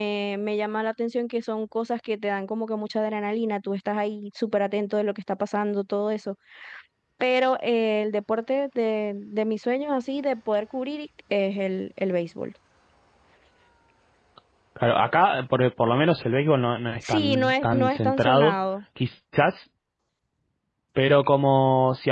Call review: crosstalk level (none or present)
present